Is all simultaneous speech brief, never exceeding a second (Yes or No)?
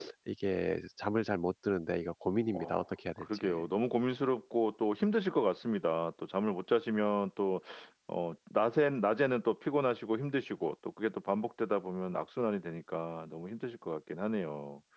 Yes